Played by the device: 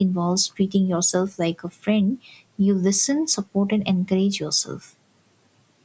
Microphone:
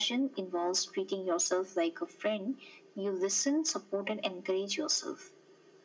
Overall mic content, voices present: echo only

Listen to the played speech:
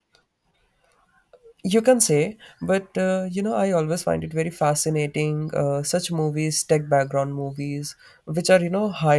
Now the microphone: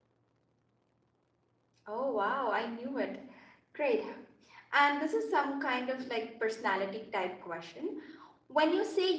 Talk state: user only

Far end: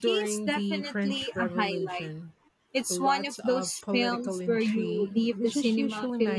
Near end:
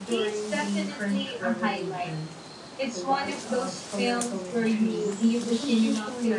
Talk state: echo only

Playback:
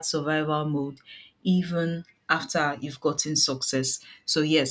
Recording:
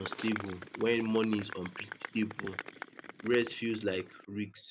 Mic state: user only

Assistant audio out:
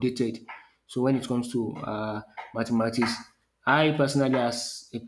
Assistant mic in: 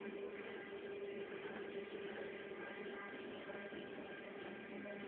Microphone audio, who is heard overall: neither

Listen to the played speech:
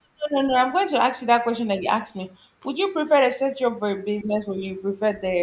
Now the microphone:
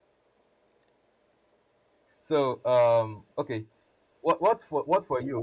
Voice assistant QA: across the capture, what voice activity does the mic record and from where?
user only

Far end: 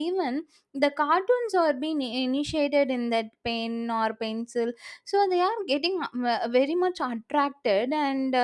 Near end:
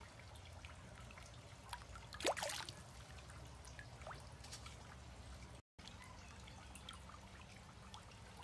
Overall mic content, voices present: neither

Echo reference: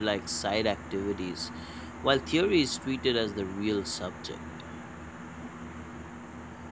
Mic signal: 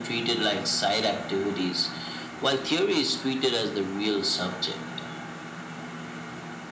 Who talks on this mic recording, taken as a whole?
echo only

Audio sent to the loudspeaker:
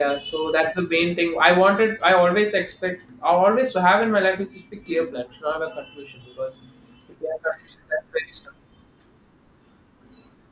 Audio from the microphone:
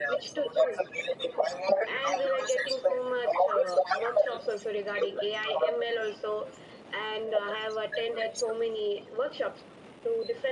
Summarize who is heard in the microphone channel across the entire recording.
both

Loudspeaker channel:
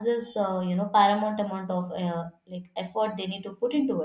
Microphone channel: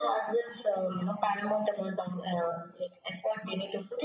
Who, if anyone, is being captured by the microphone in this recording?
echo only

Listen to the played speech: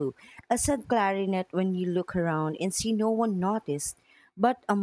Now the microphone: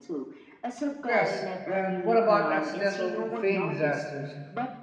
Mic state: both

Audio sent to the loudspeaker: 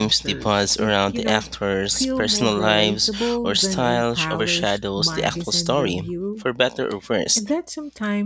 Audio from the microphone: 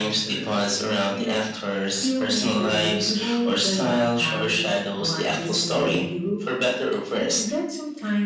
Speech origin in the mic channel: echo only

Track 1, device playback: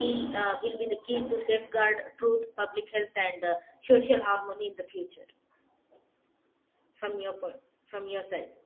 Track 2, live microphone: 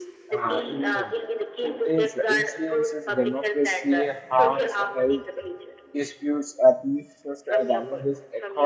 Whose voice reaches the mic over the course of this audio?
both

